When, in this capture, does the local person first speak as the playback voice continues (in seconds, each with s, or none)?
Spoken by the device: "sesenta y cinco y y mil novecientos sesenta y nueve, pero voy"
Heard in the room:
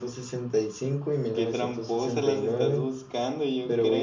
1.3 s